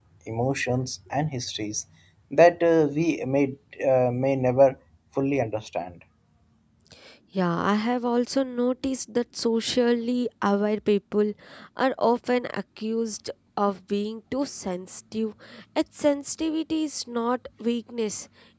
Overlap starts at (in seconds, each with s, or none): none